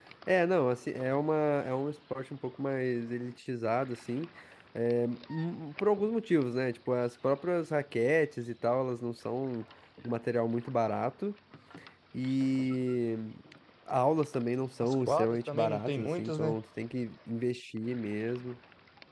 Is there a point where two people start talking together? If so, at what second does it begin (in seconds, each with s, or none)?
14.8 s